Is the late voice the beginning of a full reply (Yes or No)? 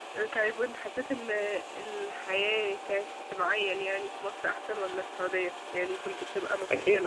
Yes